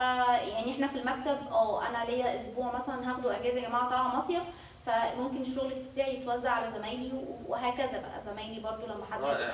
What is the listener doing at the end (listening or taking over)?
taking over